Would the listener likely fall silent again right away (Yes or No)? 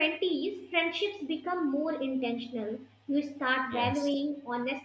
Yes